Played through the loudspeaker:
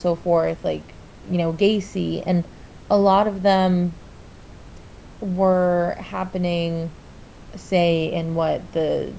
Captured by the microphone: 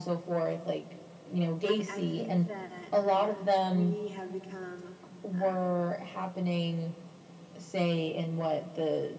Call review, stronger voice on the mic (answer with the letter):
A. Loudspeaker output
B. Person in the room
A